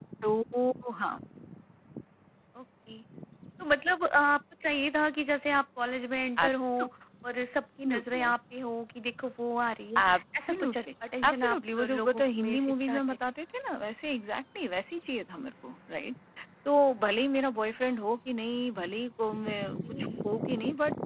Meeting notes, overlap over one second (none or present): present